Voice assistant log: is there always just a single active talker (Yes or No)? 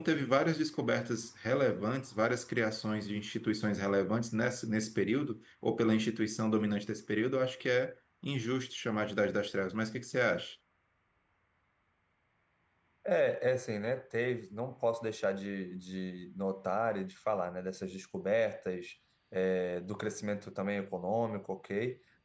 Yes